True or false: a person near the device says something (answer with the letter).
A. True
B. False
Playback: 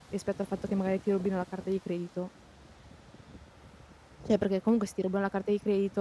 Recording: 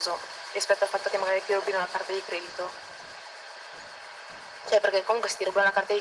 B